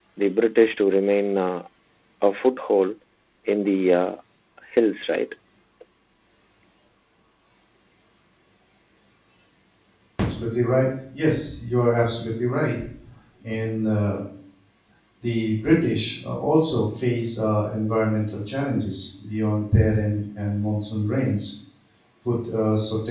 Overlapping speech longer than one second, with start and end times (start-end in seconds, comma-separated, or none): none